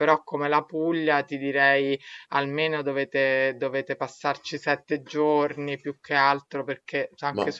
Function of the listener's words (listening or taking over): listening